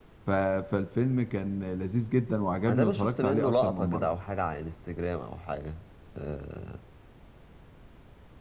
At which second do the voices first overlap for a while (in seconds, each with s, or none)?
2.7 s